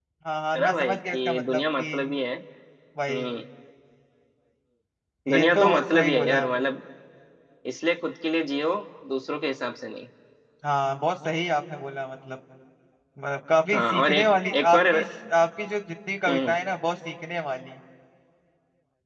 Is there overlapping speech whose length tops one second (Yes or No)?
Yes